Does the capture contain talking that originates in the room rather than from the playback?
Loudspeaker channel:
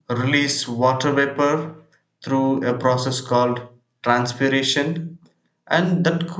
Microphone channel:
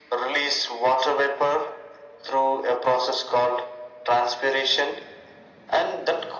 No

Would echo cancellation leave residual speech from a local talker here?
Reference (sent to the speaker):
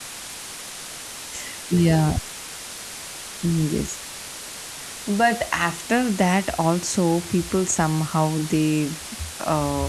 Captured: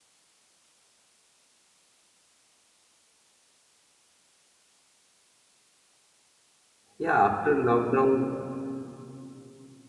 Yes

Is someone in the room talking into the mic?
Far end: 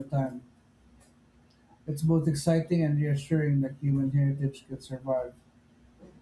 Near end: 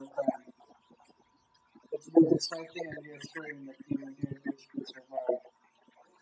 No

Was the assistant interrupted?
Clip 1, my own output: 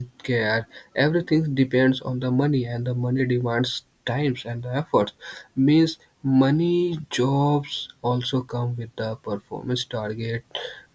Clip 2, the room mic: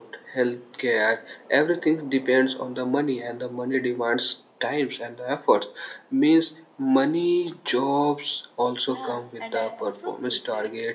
Yes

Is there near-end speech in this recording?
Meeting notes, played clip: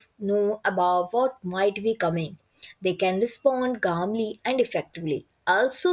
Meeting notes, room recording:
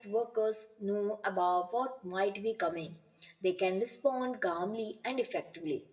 No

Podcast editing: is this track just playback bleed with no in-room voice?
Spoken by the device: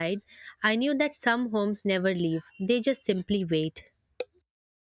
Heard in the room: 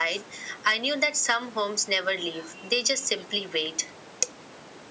Yes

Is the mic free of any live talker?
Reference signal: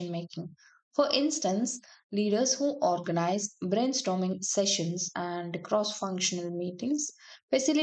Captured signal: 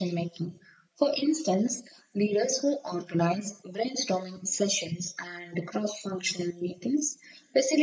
Yes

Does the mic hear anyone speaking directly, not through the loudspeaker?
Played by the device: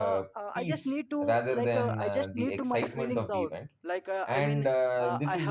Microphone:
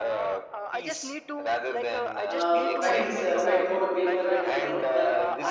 Yes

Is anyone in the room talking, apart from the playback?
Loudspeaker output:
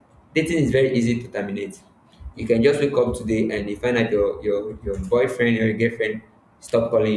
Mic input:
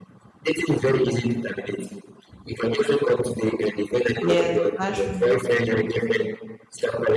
Yes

